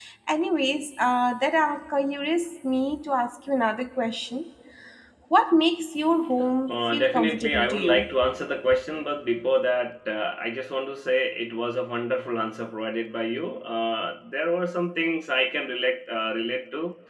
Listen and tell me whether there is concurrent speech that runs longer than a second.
Yes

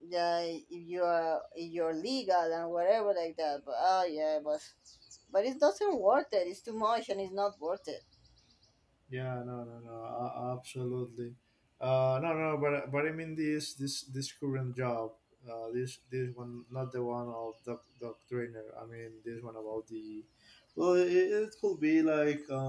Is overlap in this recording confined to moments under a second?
Yes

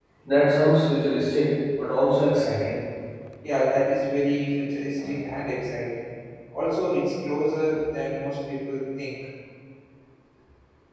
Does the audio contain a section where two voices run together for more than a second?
No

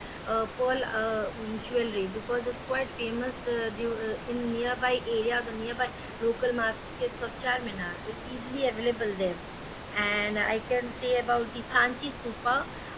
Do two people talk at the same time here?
No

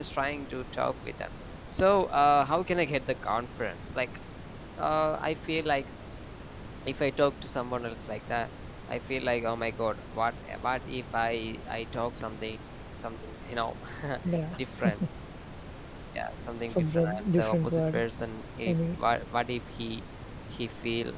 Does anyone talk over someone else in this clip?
Yes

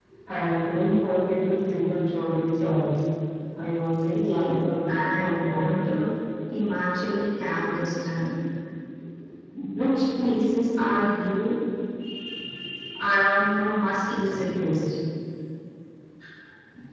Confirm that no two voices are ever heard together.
No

